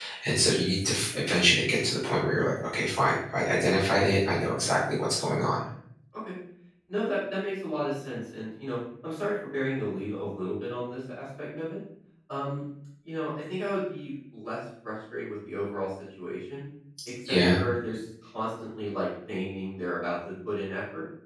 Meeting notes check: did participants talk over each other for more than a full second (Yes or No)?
No